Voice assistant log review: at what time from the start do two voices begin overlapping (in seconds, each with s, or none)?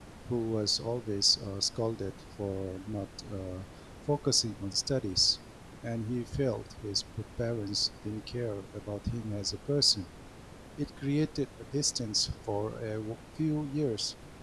none